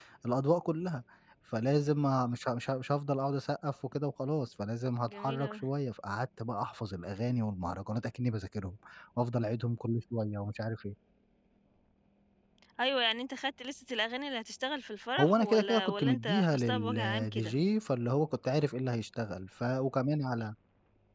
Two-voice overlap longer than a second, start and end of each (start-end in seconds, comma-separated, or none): 15.2-17.5